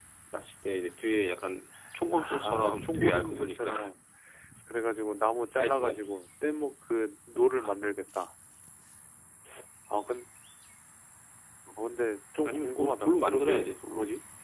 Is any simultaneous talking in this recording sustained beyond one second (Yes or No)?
Yes